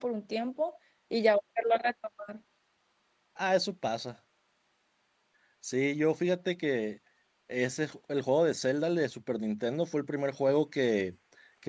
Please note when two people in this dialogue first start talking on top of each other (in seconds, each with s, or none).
none